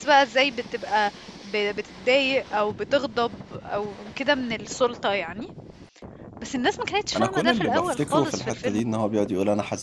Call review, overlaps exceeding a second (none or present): present